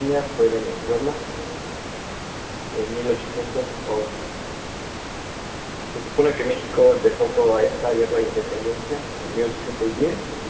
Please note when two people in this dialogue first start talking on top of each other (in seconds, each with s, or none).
none